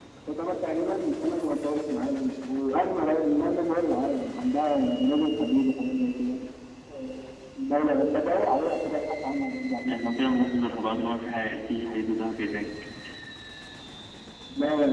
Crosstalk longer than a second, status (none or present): none